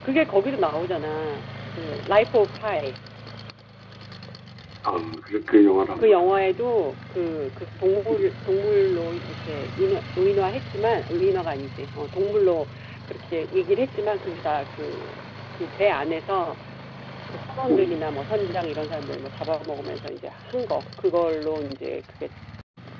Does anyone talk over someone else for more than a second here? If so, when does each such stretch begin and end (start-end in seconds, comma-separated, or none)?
none